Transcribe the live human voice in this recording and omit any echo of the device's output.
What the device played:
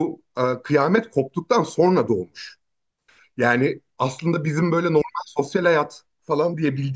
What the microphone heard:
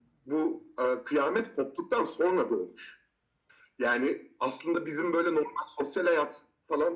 none

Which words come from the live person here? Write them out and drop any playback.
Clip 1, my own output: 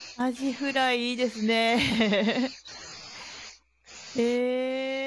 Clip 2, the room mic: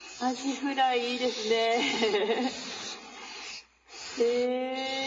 none

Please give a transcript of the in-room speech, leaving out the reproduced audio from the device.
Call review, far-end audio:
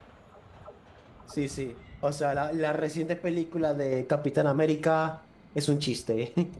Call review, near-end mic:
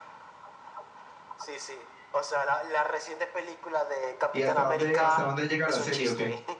¿Y hasta dónde, hasta dónde llega la serie o qué?

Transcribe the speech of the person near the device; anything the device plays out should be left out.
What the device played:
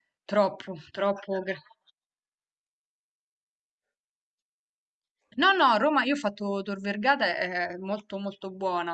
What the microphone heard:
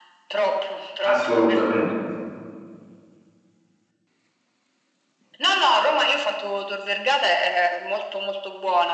assolutamente.

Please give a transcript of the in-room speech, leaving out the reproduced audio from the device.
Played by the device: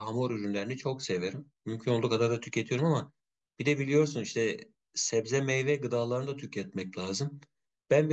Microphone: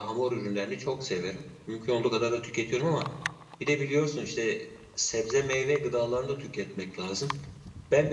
none

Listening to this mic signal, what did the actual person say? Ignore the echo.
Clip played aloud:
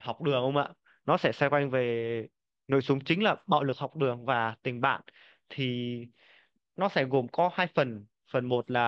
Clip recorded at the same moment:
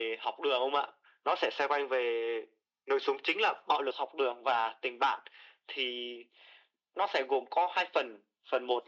none

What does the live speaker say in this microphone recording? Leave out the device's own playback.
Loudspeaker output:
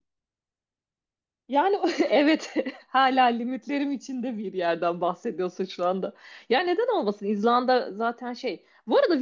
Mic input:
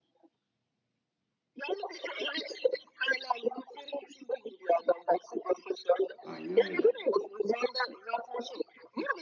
Aynen öyle.

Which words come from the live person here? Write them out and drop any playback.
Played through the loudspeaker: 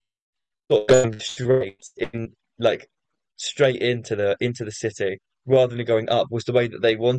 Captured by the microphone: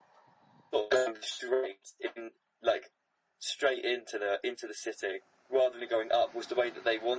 none

